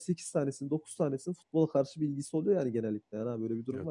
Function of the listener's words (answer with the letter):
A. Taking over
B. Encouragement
A